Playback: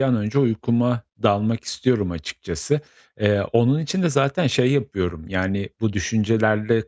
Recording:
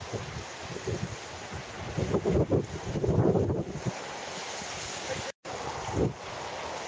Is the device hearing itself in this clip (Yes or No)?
No